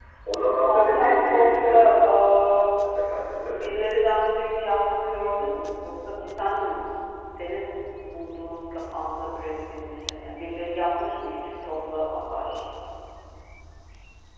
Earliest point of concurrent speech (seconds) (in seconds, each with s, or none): 0.6 s